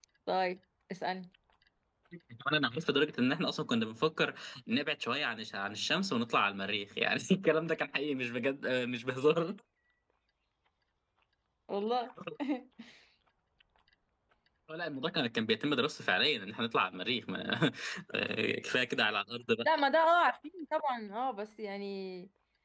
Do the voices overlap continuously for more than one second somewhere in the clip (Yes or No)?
No